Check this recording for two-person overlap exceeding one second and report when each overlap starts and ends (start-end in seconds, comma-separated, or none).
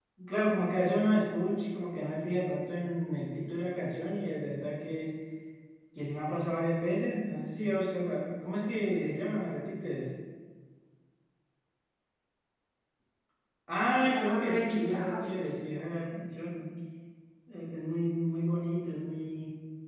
14.0-15.3